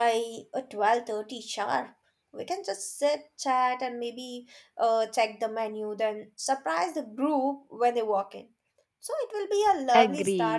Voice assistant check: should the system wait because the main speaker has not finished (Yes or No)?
No